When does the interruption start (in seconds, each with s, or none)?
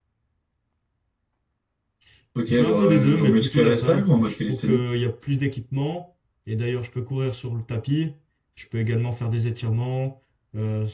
2.5 s